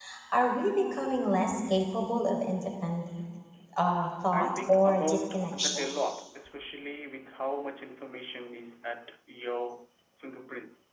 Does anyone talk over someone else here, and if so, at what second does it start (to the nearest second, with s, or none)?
4 s